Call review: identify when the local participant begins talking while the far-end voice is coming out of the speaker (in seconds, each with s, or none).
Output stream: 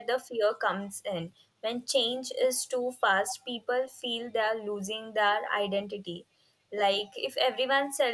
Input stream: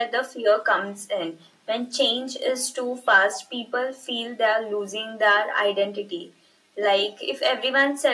none